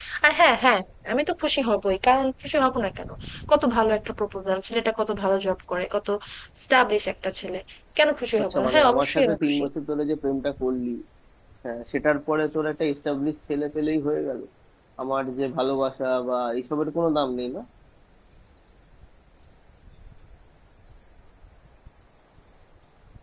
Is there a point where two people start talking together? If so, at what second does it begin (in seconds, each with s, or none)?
8.4 s